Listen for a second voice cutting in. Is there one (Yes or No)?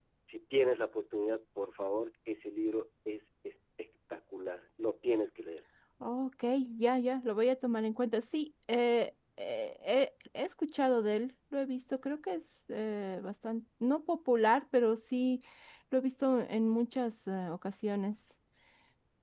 No